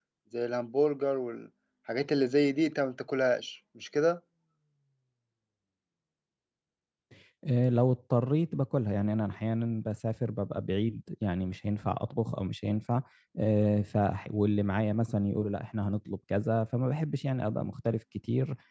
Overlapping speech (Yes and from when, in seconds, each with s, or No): No